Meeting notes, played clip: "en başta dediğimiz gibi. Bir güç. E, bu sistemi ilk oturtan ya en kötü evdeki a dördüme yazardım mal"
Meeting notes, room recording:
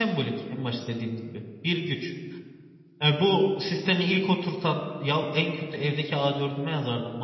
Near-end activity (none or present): none